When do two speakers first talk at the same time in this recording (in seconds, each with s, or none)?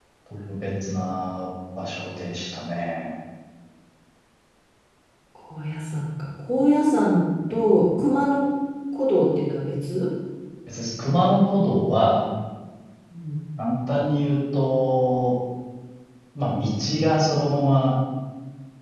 none